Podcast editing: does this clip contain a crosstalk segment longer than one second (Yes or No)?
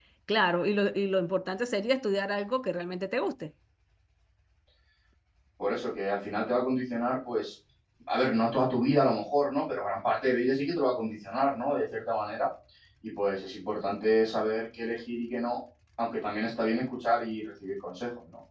No